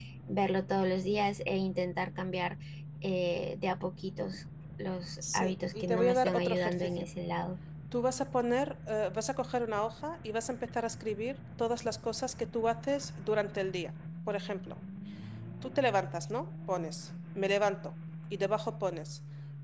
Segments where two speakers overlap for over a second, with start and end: 5.3-6.9

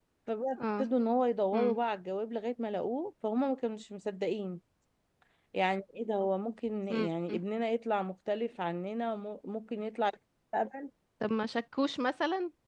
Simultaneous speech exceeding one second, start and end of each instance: none

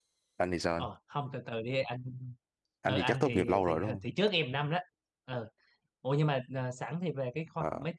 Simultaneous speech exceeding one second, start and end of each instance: 2.9-4.1

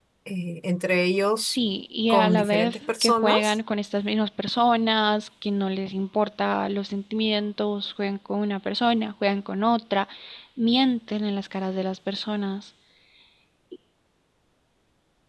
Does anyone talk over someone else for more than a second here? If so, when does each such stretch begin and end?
2.1-3.6

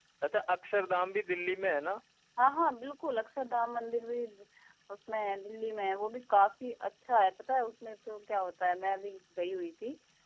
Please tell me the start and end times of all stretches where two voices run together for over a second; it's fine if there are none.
none

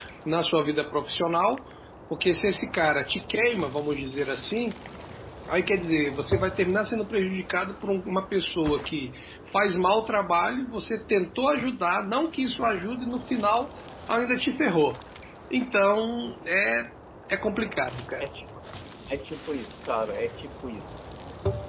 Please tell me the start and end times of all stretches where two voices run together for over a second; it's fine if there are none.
none

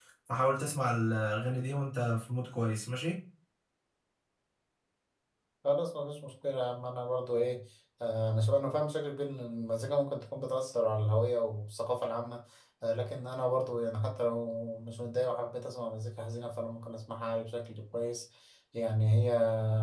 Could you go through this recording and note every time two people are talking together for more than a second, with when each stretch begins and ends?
none

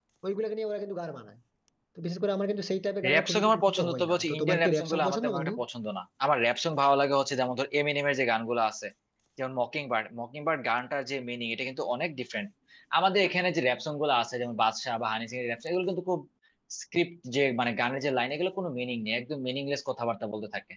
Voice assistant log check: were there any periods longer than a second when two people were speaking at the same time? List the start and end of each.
3.1-5.5

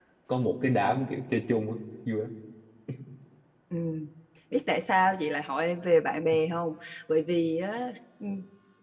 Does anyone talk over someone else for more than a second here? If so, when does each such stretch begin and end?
none

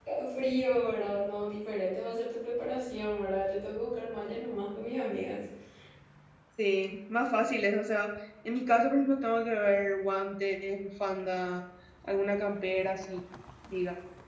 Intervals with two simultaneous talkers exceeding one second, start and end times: none

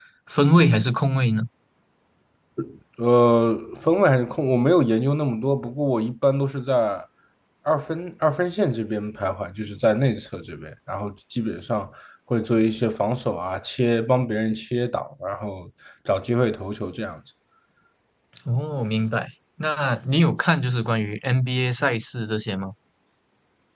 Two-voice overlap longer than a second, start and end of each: none

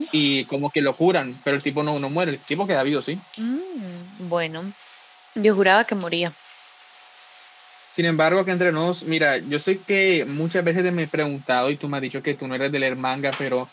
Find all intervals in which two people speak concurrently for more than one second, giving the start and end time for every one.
none

